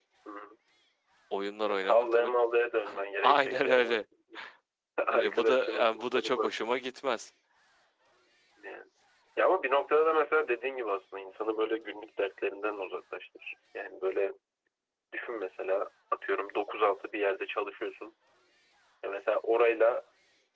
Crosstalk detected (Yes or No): Yes